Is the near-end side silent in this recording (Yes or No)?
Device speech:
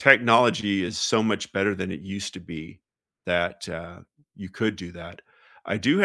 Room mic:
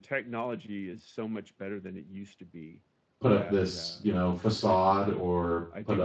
No